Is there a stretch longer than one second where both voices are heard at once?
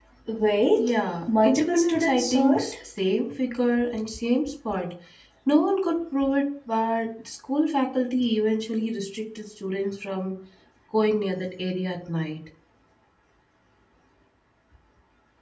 Yes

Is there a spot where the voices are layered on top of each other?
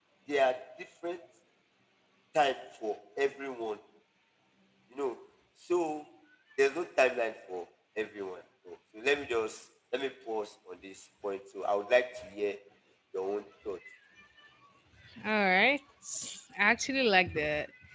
No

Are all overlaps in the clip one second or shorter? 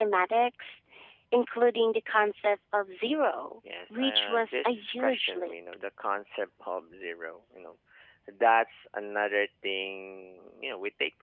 No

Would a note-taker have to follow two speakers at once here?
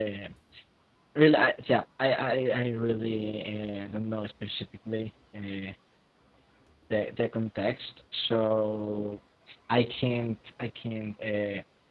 No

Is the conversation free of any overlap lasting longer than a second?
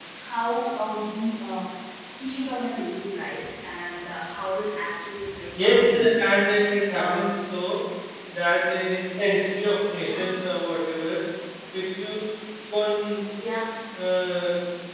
Yes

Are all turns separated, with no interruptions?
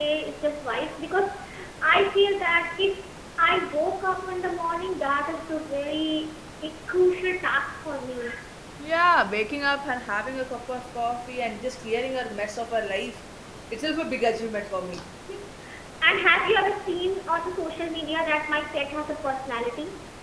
Yes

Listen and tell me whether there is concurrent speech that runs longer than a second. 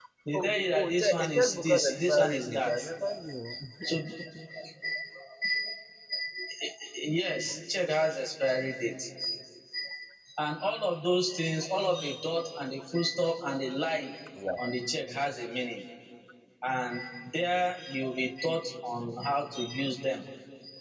Yes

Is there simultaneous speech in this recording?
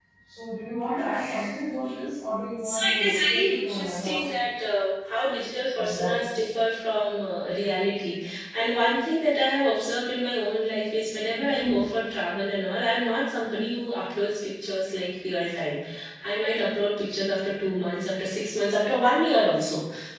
Yes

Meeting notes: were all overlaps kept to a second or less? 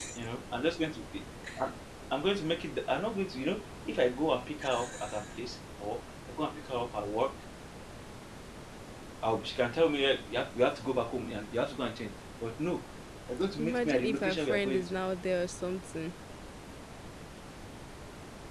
No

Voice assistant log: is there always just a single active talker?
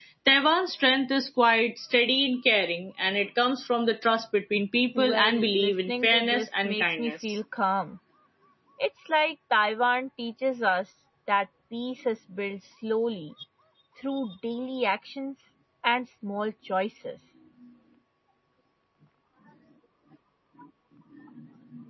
No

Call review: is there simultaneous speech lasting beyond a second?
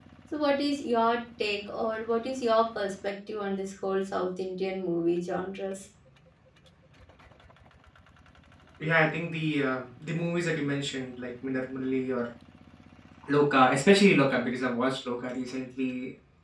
No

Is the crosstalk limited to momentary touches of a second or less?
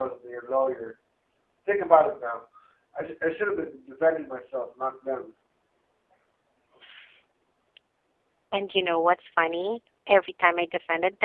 Yes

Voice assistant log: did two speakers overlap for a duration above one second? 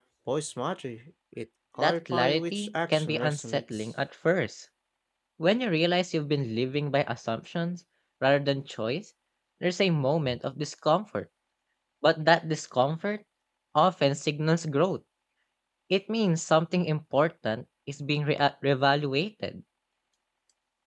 Yes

